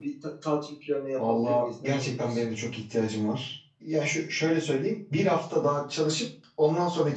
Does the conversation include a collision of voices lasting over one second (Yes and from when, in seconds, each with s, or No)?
Yes, from 1.2 s